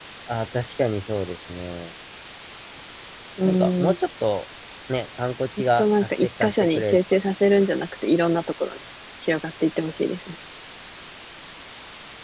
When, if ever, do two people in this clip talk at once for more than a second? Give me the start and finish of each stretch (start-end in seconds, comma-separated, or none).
5.6-7.0